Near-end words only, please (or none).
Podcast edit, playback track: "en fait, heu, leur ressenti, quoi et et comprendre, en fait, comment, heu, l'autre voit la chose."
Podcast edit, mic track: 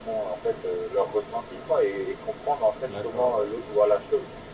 D'accord, ouais.